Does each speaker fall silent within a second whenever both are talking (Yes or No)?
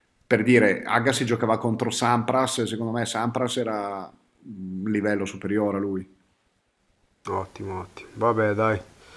Yes